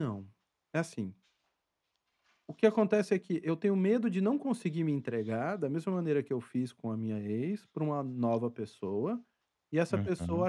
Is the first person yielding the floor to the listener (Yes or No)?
No